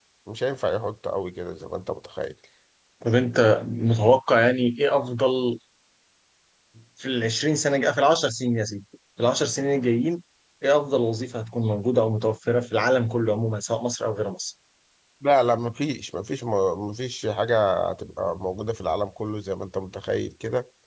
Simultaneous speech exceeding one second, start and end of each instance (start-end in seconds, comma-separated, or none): none